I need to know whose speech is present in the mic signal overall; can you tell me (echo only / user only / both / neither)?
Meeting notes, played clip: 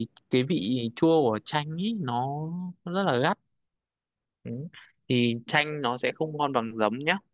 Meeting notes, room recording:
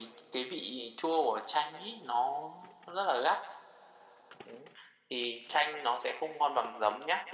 echo only